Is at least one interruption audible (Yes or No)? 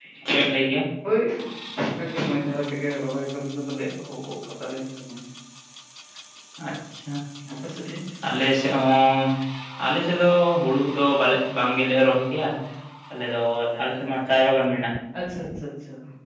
No